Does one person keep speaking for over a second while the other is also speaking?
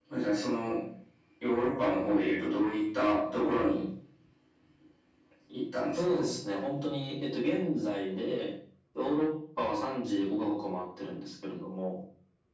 No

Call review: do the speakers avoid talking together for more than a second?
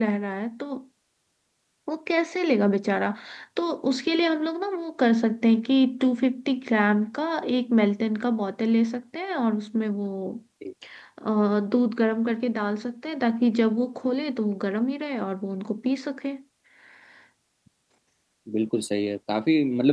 Yes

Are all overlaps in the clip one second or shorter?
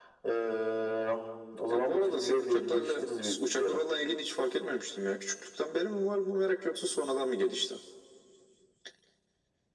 No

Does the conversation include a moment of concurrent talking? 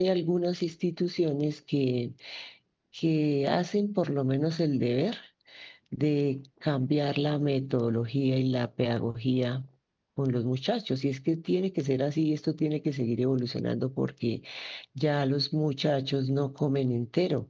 No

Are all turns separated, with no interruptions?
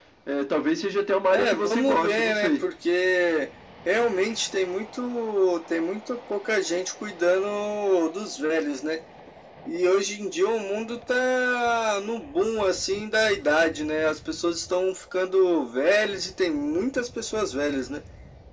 No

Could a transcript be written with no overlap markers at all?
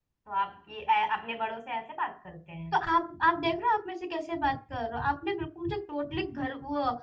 Yes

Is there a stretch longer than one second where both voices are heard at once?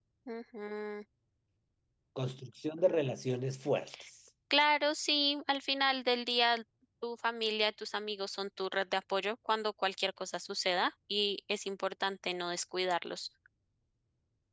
No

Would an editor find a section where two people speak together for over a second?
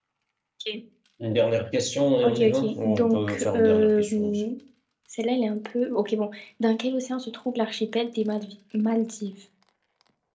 Yes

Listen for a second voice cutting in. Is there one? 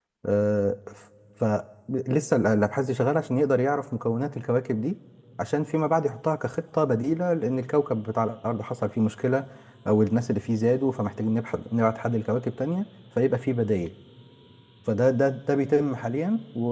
No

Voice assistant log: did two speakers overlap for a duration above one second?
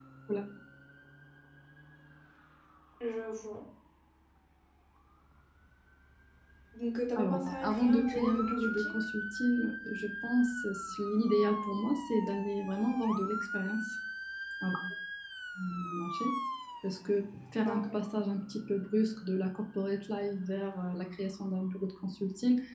Yes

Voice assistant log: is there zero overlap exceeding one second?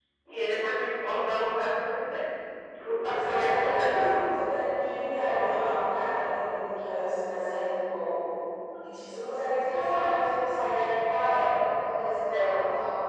No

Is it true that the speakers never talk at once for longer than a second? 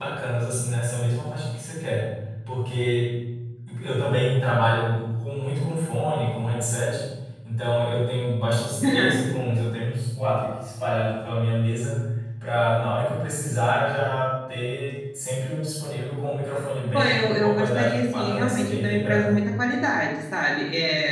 No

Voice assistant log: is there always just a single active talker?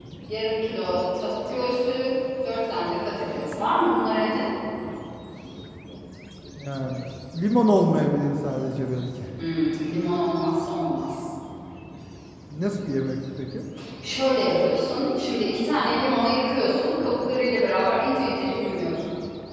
Yes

